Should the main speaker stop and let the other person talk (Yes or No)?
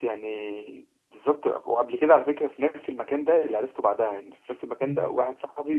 No